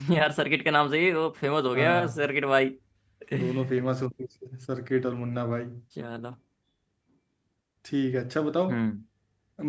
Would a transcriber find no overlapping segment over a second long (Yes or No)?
Yes